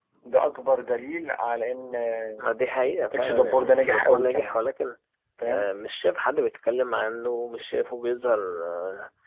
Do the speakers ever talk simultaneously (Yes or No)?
Yes